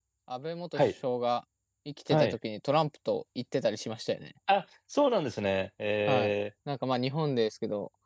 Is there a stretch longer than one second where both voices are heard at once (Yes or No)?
No